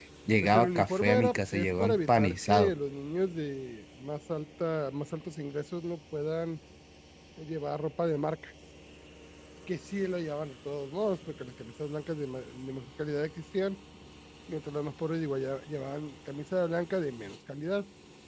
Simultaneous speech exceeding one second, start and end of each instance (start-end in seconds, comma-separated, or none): 0.5-2.7